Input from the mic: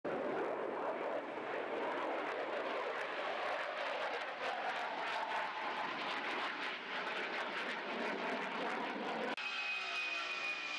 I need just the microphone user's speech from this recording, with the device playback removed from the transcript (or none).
none